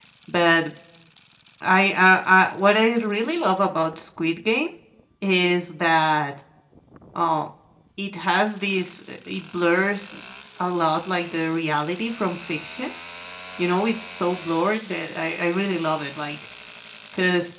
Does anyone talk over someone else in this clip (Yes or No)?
No